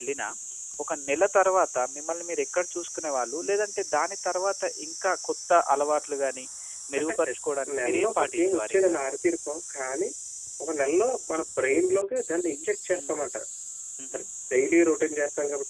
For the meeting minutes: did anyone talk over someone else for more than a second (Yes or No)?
Yes